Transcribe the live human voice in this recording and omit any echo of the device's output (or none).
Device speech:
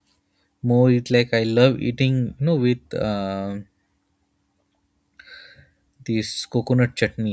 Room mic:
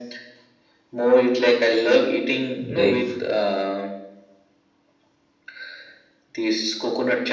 Like